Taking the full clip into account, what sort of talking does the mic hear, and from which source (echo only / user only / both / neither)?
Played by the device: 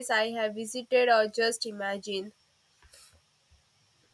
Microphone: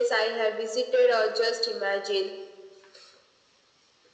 echo only